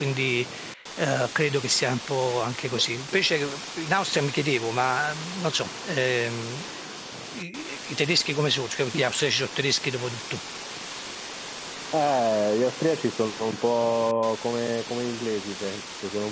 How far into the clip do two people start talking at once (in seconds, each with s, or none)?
none